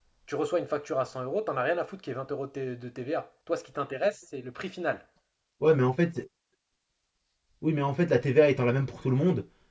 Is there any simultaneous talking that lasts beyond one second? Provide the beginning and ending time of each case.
none

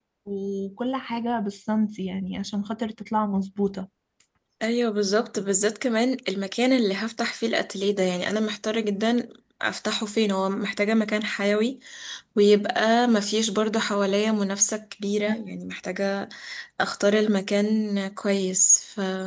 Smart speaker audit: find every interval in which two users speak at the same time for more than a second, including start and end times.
none

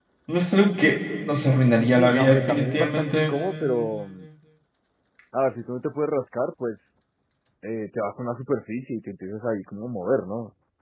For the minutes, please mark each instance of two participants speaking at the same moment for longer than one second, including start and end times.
1.8-3.3

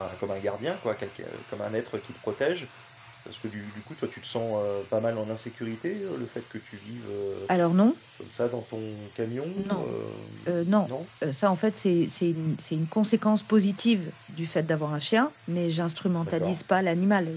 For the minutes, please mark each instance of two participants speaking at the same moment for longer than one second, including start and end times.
none

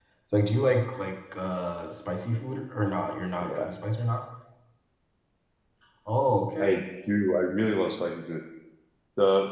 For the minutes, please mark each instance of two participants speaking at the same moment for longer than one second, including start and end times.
none

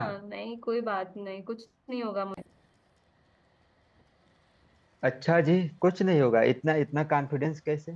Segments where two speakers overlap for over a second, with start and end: none

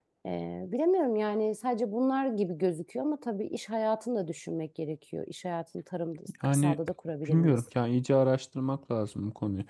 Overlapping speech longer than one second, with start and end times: none

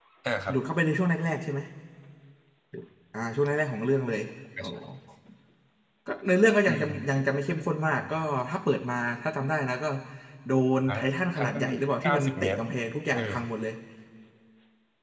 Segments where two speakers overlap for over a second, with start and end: 11.4-12.6

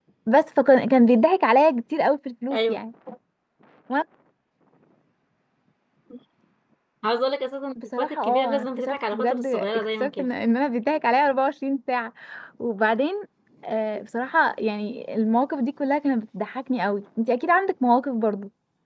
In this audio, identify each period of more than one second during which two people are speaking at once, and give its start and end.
8.0-10.3

